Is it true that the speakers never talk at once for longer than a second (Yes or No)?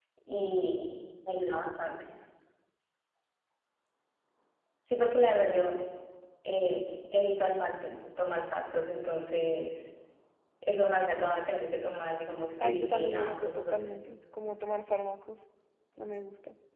No